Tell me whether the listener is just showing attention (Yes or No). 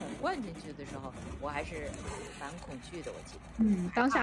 No